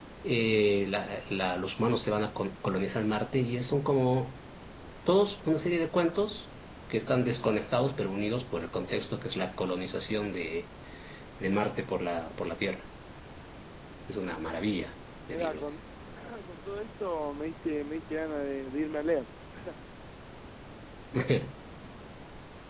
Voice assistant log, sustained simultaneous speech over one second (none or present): none